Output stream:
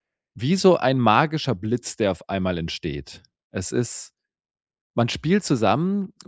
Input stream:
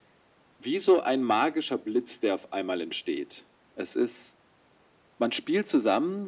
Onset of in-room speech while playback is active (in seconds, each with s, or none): none